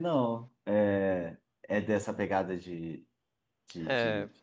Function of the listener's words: taking over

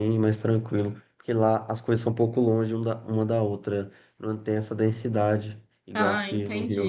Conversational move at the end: taking over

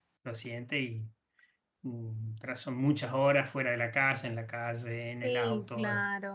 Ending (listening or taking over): taking over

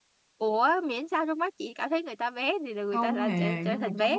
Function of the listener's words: taking over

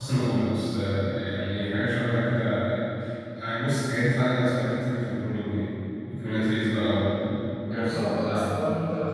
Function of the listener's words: taking over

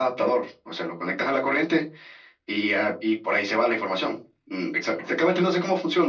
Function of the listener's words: listening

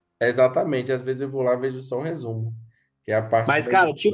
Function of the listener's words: taking over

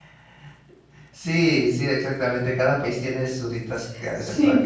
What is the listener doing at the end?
taking over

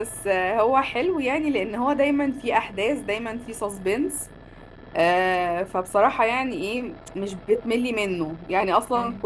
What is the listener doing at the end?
listening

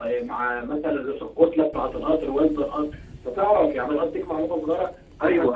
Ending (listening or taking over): taking over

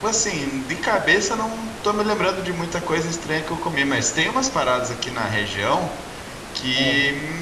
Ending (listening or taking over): listening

